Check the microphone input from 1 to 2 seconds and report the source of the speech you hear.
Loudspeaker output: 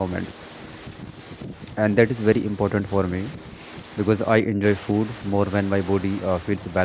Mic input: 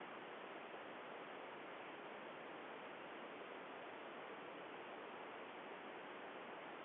neither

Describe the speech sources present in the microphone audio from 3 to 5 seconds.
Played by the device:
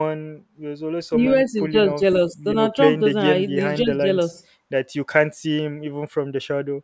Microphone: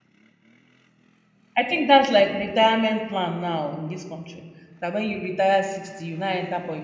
user only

